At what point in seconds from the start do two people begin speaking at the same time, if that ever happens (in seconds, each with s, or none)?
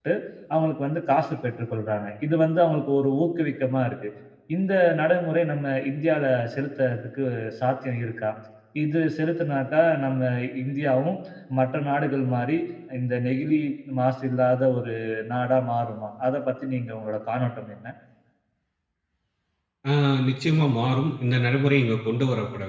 none